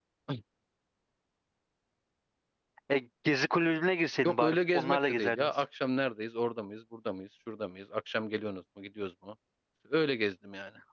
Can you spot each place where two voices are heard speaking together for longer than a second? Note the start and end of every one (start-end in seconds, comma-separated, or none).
4.2-5.6